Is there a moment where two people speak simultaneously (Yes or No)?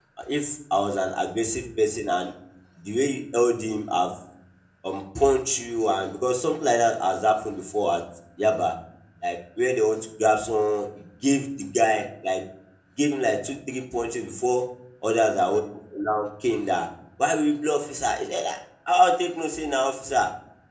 No